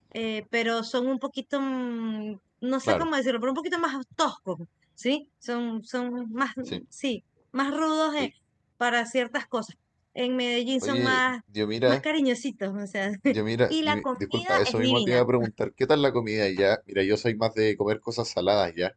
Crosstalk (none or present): present